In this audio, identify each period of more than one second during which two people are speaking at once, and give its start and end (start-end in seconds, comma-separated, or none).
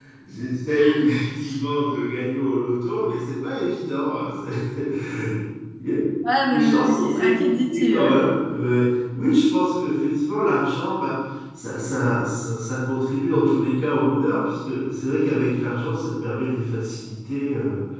6.5-8.1